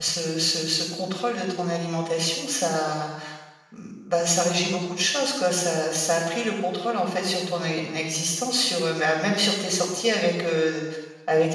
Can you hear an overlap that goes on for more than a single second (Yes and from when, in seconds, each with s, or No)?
No